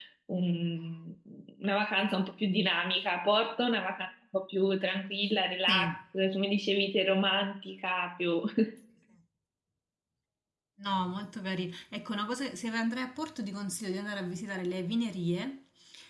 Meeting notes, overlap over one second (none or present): none